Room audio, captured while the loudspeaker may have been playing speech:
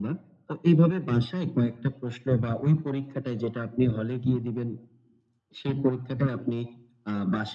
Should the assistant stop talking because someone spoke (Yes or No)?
No